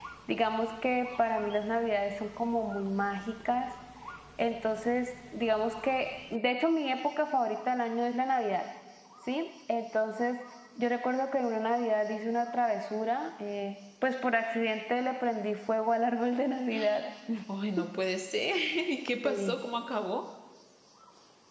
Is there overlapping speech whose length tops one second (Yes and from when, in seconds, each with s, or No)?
No